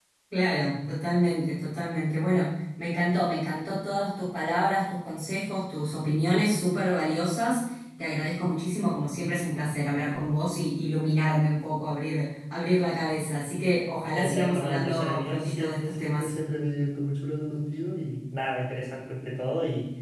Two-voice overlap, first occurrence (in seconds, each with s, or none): 14.1 s